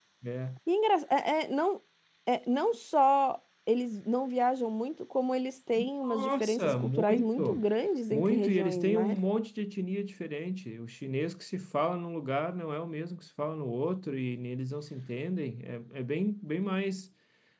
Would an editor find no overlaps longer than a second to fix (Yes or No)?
No